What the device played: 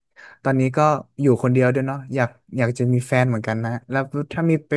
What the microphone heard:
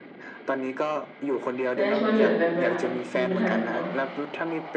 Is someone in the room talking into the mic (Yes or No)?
Yes